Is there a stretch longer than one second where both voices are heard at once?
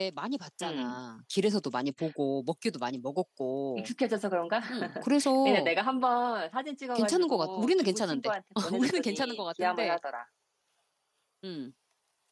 Yes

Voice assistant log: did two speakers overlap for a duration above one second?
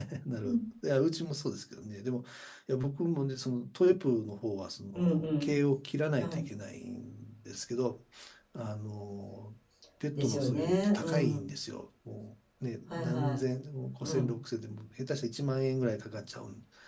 Yes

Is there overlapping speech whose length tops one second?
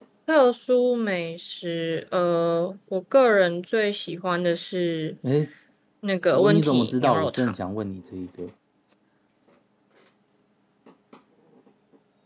Yes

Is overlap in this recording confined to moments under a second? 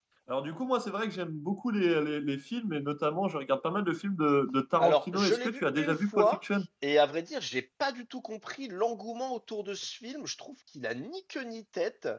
No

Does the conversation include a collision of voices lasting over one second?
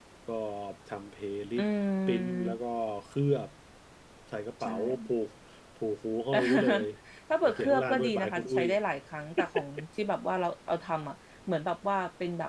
Yes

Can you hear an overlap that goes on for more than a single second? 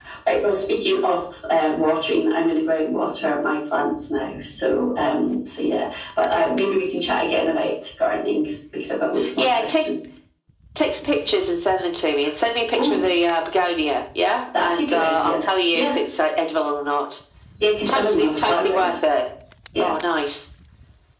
Yes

